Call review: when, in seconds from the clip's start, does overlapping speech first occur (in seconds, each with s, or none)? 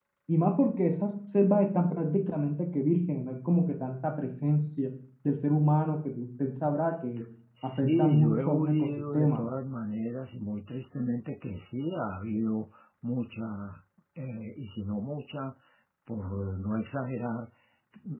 7.6 s